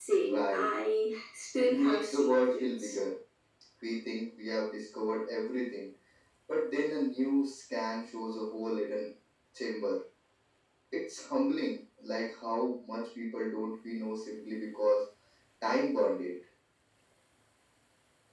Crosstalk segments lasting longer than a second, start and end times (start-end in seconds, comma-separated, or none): 1.6-3.0